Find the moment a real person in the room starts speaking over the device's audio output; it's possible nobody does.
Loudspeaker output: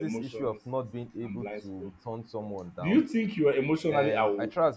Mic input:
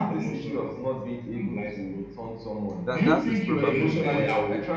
2.9 s

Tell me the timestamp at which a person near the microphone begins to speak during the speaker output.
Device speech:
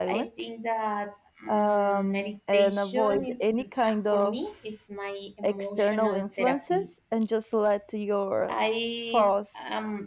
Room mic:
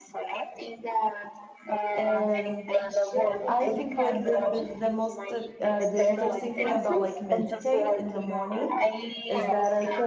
2.0 s

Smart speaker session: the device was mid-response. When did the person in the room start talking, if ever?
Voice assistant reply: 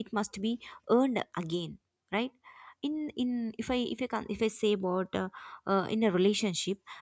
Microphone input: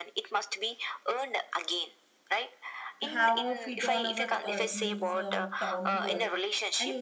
3.0 s

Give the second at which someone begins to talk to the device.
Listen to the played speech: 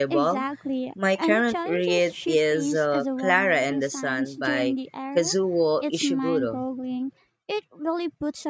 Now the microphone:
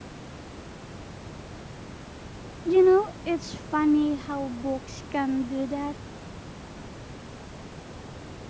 2.6 s

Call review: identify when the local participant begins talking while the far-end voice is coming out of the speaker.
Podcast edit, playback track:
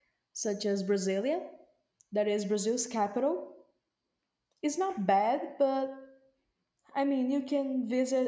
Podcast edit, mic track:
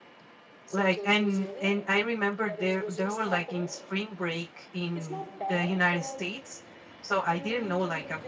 0.7 s

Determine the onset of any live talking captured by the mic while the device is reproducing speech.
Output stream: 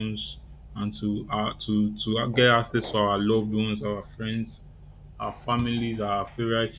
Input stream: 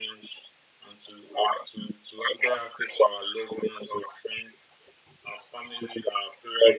none

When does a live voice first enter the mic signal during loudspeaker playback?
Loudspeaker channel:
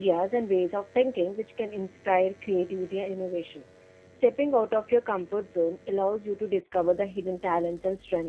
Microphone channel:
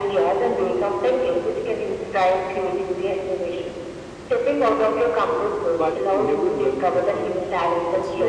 5.7 s

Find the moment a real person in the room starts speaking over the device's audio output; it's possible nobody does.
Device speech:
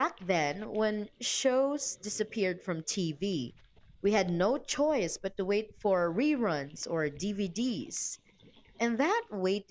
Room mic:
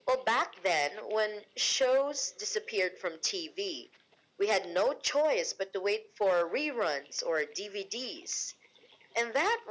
none

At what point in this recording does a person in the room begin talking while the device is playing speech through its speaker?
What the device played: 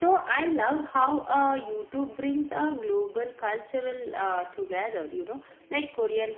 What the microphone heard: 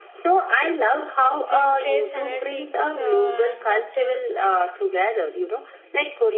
1.5 s

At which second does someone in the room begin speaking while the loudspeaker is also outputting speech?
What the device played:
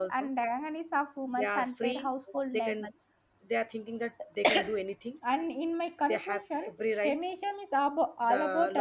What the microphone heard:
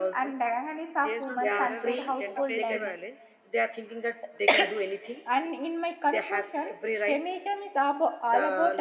1.0 s

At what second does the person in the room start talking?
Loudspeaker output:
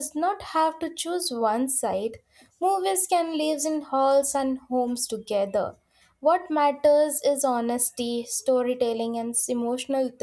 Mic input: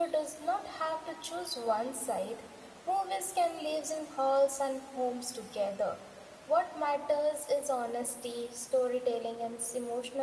none

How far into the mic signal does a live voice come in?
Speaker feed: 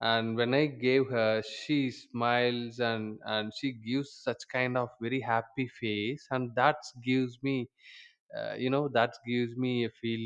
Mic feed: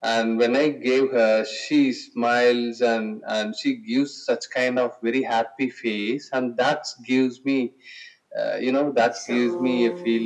9.1 s

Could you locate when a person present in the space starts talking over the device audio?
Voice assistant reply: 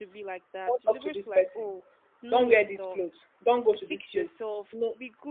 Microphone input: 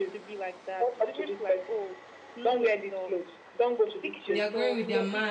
4.3 s

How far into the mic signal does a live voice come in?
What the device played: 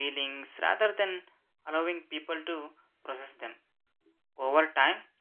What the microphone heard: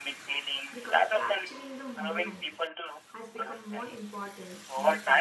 0.7 s

